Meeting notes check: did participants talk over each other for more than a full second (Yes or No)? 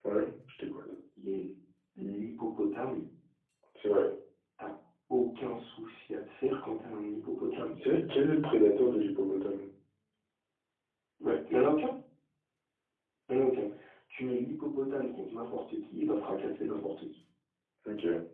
No